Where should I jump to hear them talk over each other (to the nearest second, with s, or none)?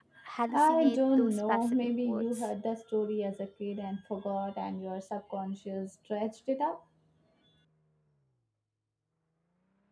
1 s